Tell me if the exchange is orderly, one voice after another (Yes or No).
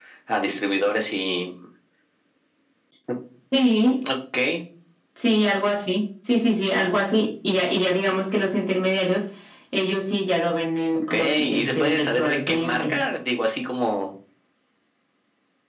No